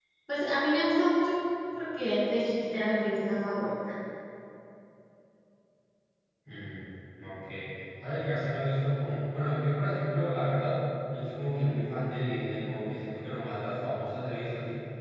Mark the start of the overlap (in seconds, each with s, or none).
none